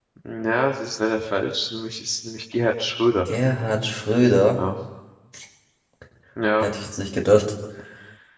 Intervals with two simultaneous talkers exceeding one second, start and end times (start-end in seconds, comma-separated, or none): none